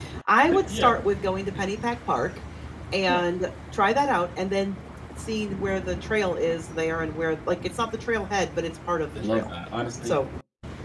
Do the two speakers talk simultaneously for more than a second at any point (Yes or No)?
No